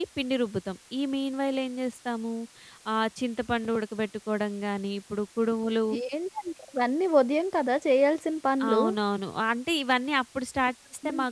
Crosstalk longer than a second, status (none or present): none